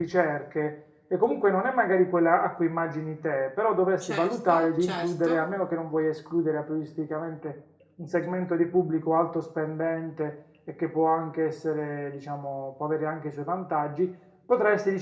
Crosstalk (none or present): present